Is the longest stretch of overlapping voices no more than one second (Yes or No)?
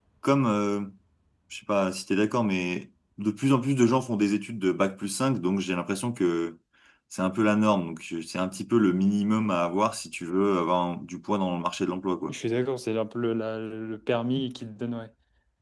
Yes